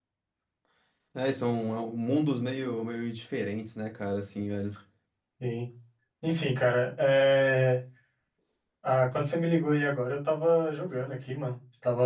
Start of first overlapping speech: none

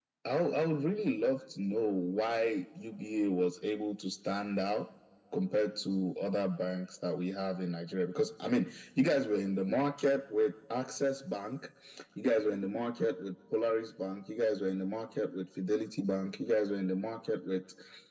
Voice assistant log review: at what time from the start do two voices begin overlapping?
none

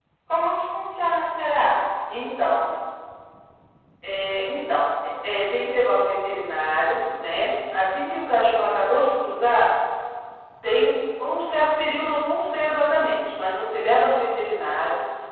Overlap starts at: none

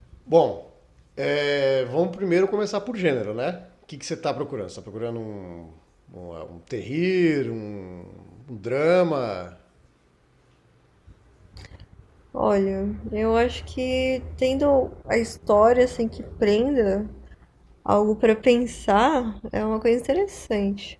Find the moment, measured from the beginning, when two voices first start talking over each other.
none

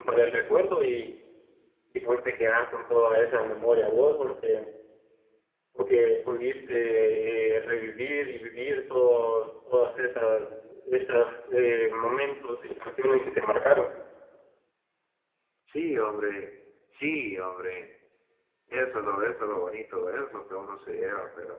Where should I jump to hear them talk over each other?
none

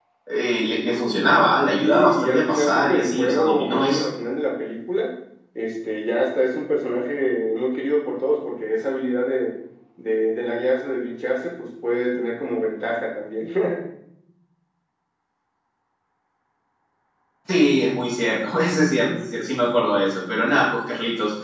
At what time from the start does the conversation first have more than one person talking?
1.8 s

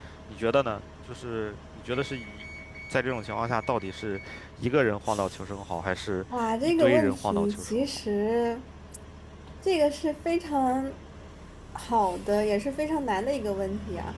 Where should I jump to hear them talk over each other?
6.6 s

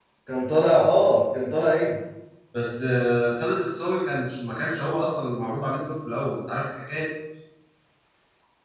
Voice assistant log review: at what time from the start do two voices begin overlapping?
none

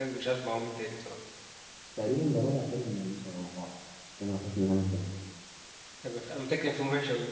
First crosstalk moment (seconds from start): none

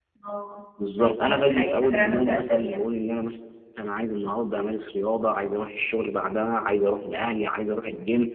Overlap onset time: 1.0 s

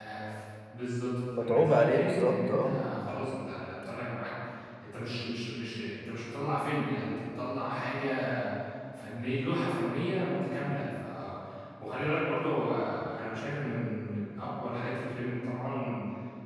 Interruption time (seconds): 1.3 s

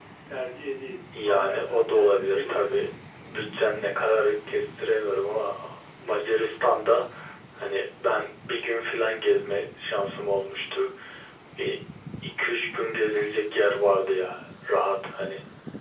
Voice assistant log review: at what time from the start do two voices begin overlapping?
1.2 s

